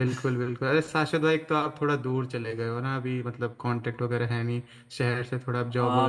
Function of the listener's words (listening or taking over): taking over